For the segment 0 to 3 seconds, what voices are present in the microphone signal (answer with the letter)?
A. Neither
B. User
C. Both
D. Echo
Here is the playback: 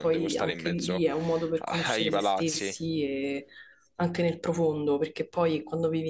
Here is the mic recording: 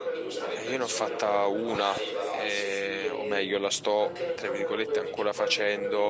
C